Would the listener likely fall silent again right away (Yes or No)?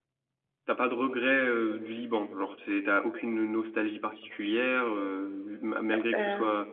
Yes